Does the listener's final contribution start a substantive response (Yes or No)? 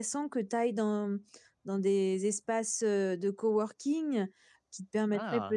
No